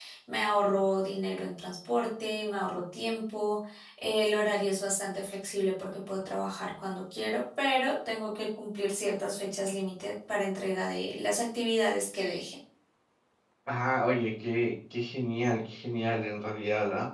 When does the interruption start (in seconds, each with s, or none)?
none